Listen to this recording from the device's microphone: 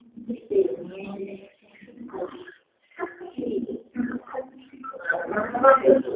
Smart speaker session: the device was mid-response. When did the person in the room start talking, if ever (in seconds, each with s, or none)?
none